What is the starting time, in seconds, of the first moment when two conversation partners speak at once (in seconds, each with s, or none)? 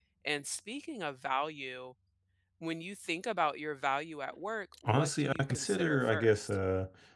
4.8 s